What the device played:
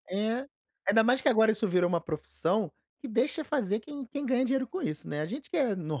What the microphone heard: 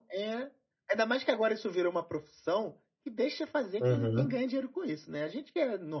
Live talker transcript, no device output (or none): Uhum.